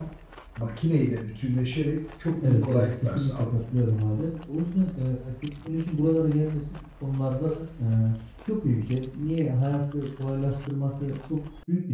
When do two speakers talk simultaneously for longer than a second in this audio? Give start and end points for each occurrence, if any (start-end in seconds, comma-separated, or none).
2.4-3.6